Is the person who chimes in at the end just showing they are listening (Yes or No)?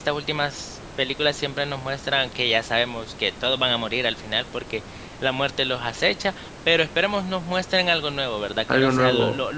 Yes